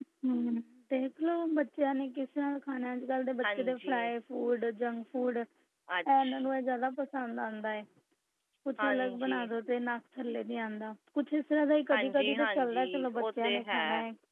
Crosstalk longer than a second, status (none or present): present